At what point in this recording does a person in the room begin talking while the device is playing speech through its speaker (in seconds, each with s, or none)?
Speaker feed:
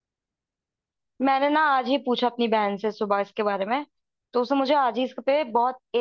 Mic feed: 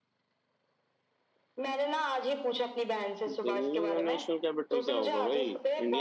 3.3 s